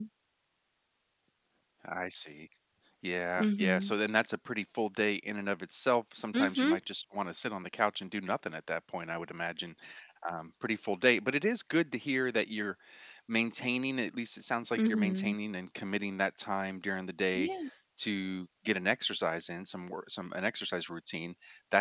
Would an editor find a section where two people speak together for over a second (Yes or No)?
No